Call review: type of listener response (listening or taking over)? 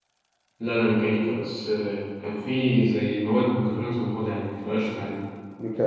taking over